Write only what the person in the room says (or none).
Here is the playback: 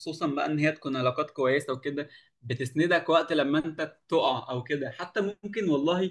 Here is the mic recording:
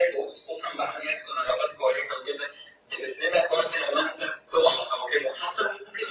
none